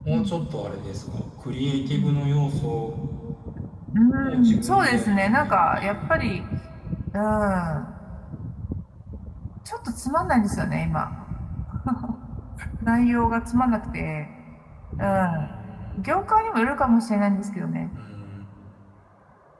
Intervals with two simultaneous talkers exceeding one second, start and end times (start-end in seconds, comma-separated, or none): 4.4-6.0